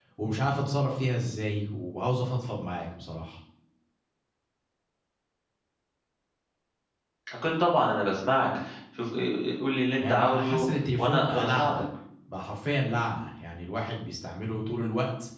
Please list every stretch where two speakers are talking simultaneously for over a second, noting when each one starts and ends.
10.0-11.8

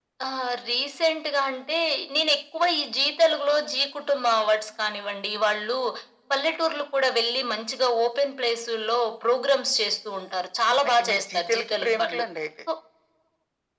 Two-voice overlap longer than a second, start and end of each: 10.9-12.2

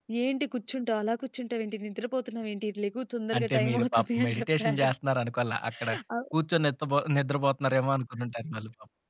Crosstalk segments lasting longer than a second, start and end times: 3.4-4.9

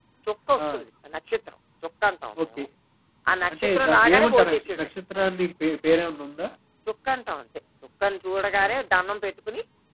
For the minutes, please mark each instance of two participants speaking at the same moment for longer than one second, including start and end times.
3.5-4.9

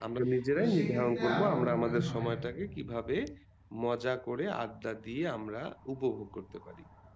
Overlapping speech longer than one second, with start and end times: 0.5-2.2

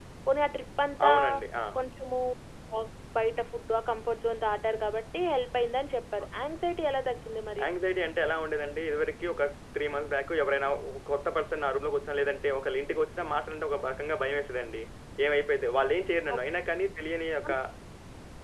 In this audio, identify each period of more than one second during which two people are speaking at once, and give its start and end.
none

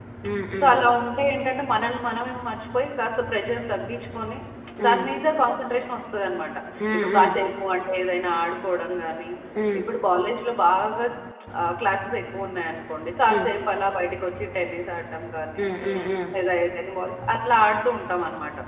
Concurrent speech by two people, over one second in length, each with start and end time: none

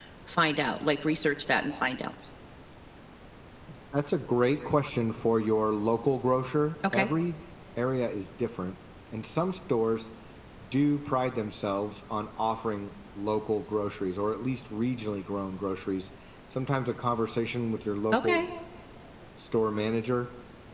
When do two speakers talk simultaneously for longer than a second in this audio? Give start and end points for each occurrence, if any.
none

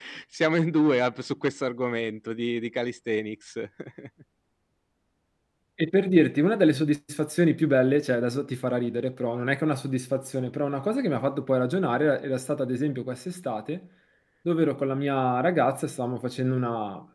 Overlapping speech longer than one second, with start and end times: none

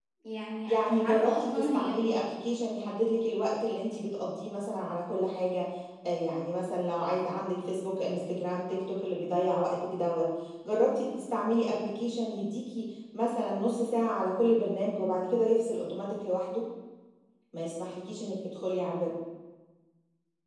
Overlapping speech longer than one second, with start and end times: 0.7-2.0

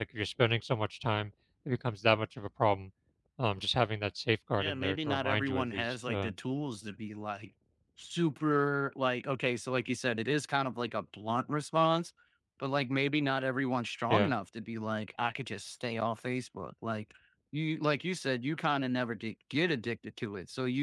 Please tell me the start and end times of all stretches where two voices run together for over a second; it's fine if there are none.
4.6-6.3

